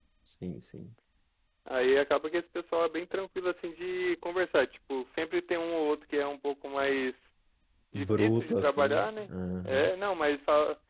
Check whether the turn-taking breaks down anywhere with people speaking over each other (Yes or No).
Yes